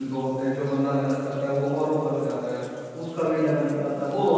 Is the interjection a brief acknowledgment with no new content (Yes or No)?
Yes